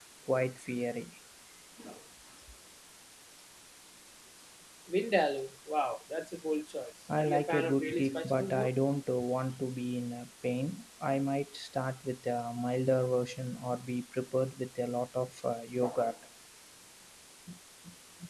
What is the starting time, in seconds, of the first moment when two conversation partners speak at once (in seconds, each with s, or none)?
7.1 s